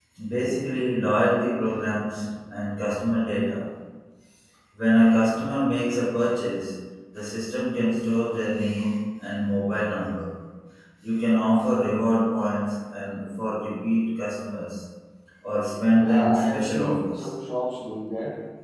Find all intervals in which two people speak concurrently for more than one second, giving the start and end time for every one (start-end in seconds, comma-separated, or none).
16.0-17.3